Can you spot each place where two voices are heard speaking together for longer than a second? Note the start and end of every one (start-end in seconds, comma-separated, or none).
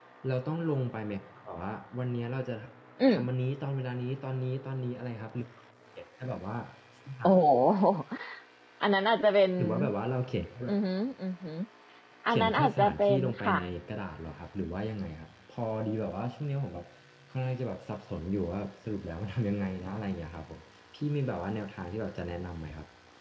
12.3-13.6